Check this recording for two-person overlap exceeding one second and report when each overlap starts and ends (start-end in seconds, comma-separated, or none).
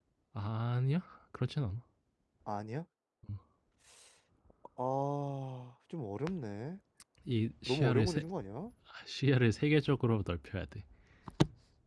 none